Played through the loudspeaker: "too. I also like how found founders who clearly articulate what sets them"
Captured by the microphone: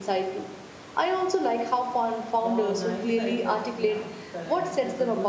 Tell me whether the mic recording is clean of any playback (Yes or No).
No